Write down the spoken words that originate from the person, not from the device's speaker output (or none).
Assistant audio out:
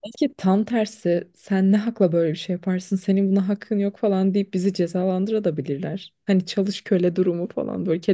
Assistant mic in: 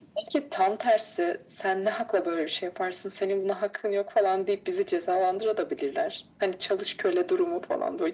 none